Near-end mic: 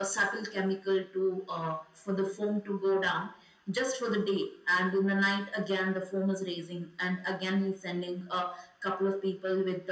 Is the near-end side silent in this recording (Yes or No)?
Yes